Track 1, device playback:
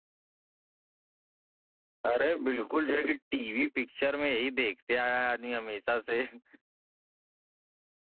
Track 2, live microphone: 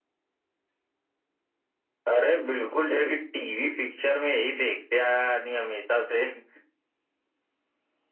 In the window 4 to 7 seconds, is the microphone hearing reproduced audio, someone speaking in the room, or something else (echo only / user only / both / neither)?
echo only